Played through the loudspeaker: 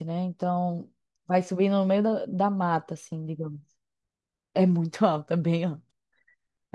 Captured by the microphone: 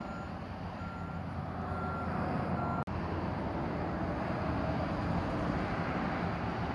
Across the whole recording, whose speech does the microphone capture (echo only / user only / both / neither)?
neither